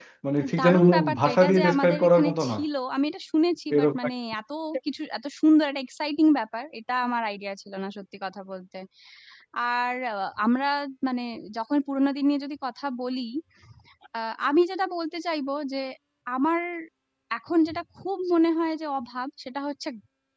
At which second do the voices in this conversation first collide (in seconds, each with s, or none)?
0.6 s